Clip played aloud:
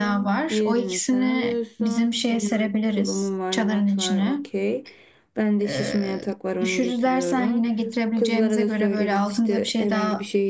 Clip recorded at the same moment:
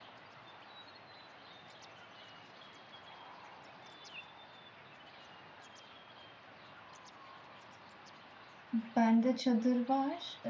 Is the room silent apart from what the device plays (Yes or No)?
No